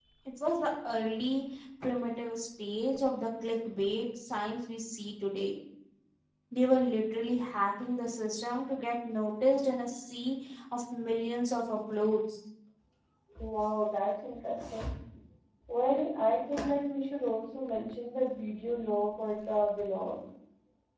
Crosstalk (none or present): none